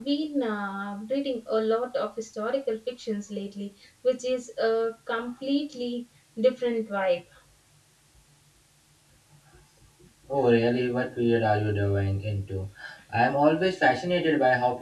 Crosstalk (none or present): none